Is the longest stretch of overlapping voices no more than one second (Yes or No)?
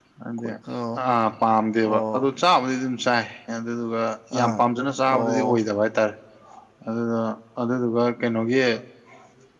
Yes